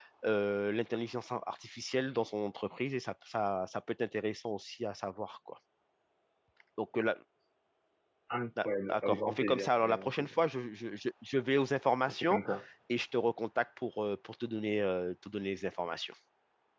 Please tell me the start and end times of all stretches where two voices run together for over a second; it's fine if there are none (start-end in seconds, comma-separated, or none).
8.7-10.3